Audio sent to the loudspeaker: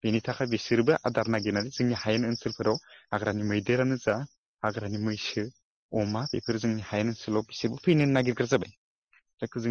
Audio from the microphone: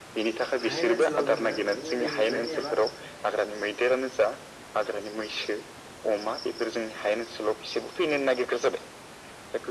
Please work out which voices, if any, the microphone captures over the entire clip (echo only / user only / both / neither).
both